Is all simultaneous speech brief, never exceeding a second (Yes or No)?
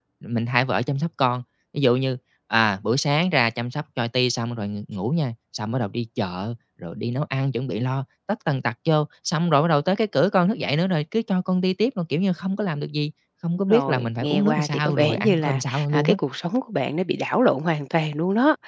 No